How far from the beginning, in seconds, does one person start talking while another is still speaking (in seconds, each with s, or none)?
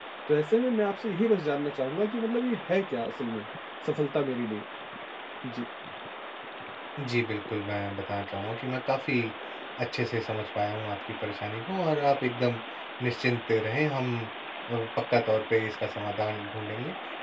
none